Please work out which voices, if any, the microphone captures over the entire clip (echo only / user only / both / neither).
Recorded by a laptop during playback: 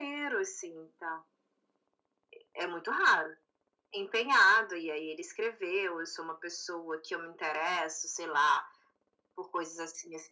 echo only